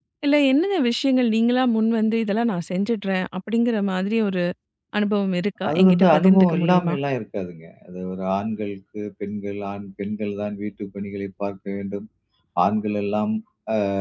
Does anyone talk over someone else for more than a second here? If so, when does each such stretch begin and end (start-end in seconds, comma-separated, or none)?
5.7-6.9